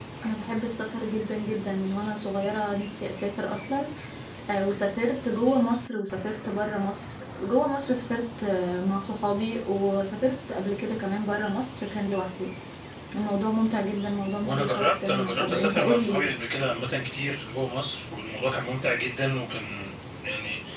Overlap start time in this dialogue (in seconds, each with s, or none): 14.4 s